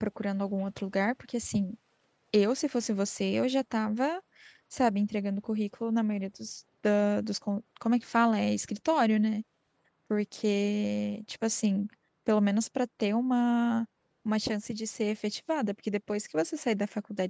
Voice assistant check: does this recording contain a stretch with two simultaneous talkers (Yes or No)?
No